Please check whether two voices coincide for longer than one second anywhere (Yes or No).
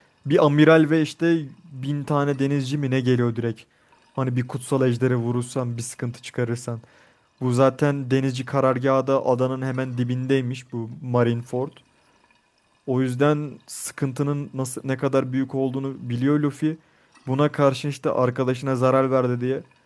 No